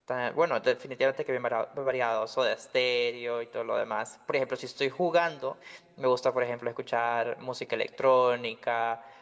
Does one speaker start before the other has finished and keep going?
No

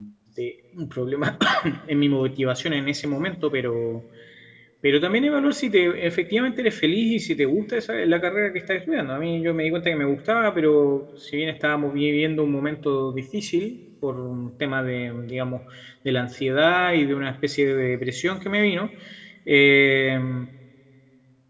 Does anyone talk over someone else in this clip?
No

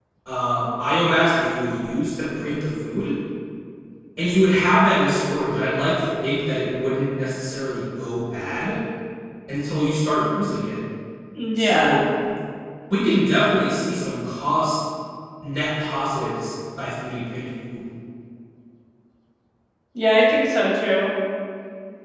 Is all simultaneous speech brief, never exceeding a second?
Yes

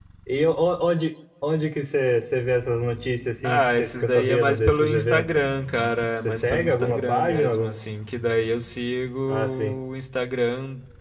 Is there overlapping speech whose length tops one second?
Yes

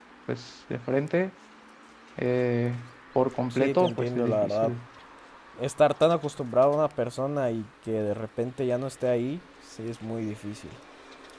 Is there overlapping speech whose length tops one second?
Yes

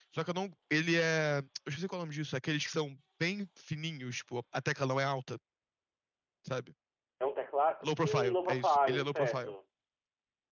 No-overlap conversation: No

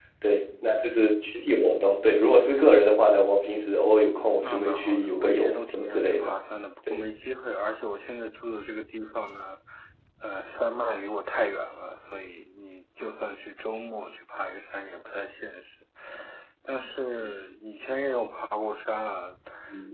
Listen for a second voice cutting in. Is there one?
Yes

